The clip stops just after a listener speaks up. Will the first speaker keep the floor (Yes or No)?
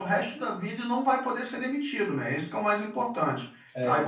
Yes